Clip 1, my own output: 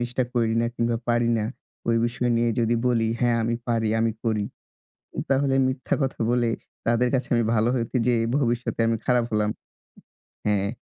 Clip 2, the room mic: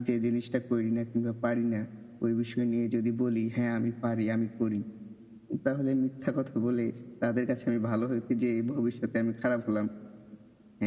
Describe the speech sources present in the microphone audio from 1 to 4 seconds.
echo only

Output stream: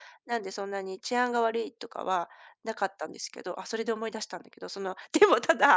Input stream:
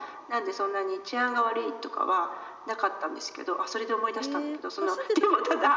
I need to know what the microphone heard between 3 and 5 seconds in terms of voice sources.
both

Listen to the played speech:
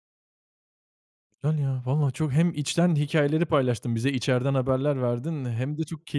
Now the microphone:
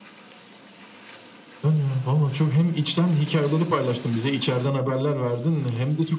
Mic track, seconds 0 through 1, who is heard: neither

